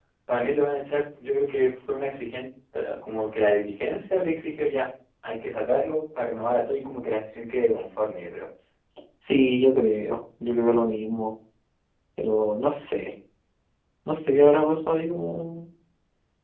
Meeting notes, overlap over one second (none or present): none